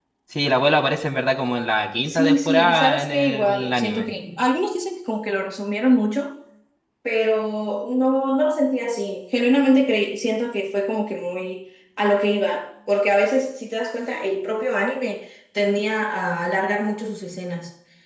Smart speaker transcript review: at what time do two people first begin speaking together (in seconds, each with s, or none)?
2.1 s